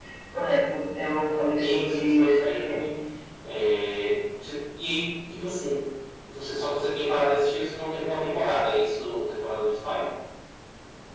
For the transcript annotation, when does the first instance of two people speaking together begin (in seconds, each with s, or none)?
1.6 s